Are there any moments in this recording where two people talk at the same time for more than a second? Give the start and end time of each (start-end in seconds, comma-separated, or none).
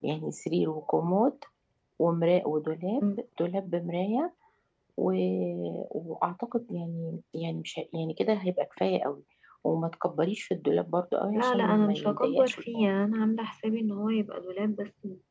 11.3-12.8